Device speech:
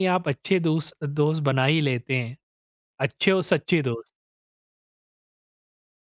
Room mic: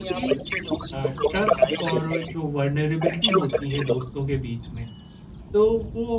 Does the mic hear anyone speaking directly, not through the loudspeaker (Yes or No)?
Yes